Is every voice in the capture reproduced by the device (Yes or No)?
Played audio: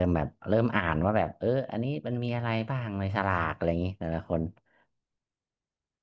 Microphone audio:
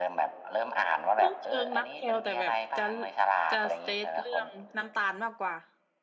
No